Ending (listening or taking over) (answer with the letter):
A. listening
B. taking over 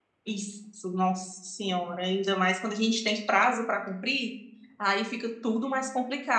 A